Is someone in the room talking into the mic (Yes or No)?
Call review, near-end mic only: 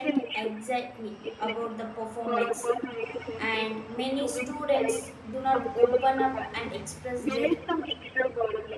Yes